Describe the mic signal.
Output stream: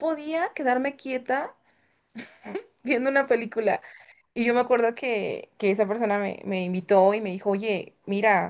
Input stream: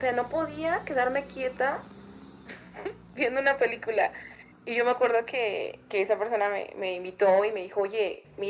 echo only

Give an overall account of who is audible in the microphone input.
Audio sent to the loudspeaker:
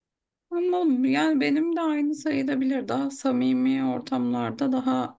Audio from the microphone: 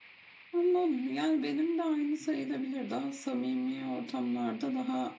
echo only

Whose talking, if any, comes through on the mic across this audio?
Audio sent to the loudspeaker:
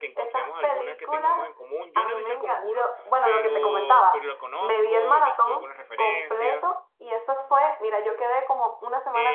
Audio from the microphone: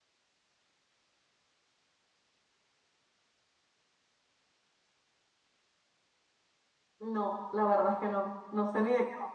user only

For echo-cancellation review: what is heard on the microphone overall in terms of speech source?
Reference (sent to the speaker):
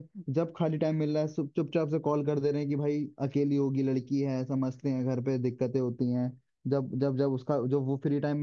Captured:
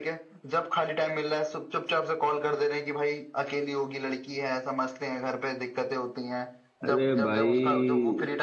both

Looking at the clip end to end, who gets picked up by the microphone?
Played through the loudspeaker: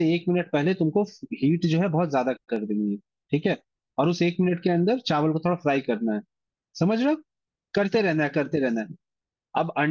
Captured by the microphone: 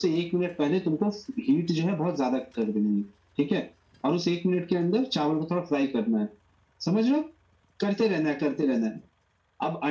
echo only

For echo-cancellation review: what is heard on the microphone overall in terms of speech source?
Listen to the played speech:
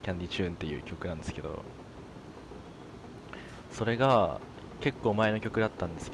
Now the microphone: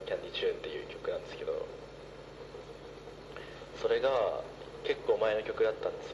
echo only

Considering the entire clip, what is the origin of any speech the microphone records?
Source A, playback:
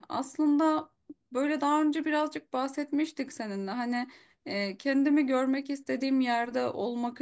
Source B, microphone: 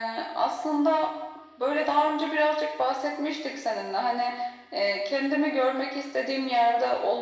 echo only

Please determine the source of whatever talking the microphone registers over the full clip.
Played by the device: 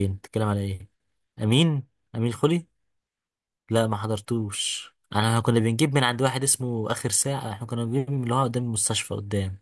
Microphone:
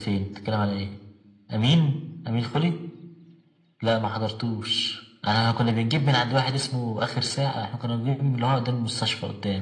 echo only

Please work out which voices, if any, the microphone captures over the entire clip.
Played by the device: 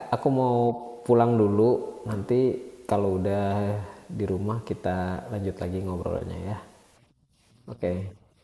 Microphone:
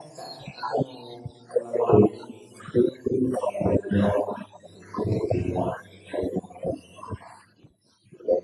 echo only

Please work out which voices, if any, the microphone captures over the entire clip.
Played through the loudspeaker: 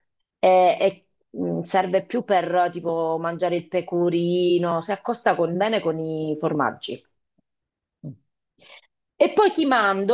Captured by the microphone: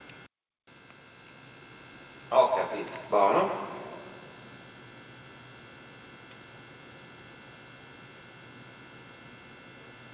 user only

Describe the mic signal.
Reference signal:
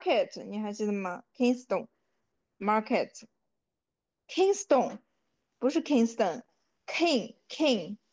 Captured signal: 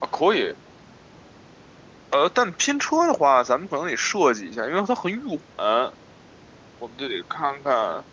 user only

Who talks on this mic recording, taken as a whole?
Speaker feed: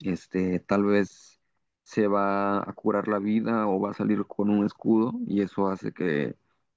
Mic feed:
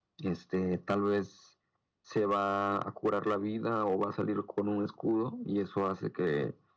echo only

